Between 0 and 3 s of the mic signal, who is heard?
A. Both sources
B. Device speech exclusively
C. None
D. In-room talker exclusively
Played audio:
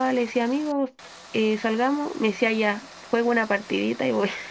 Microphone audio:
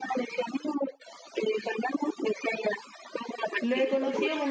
B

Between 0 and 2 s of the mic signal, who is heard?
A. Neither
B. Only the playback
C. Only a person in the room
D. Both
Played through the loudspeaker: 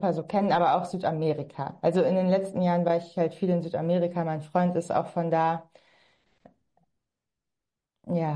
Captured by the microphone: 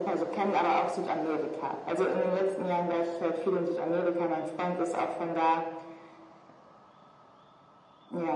B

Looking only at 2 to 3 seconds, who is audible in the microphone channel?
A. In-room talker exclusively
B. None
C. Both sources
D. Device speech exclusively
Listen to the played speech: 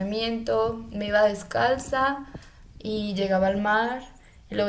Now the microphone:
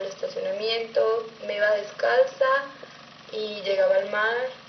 D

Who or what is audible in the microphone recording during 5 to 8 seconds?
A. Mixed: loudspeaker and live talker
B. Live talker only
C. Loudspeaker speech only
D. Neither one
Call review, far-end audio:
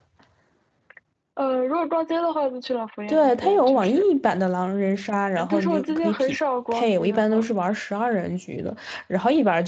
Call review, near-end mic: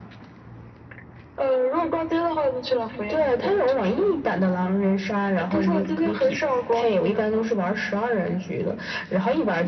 C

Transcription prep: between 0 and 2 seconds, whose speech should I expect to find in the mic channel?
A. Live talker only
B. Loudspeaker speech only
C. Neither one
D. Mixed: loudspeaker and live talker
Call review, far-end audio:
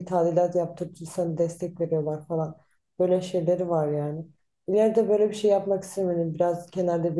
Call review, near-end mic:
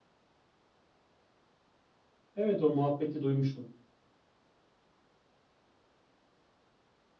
C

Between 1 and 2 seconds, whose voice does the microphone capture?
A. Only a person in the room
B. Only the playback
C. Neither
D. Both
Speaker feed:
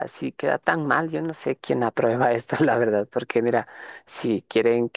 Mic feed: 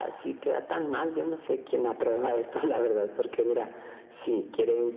B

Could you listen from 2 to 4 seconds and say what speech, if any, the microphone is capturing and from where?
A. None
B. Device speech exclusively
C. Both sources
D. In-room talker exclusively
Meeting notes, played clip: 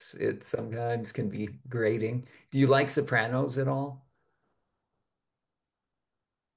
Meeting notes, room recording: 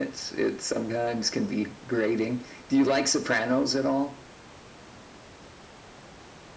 B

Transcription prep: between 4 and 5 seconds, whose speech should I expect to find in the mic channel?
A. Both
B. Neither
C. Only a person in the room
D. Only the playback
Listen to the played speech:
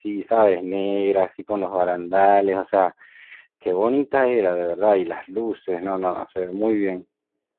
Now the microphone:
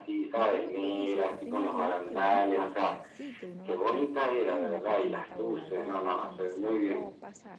A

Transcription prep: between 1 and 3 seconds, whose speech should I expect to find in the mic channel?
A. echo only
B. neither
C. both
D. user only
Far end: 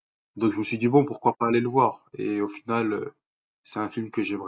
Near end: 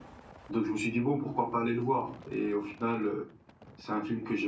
A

